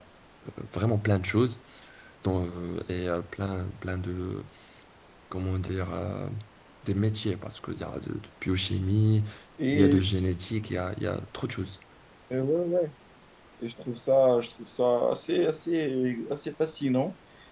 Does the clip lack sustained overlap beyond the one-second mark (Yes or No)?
Yes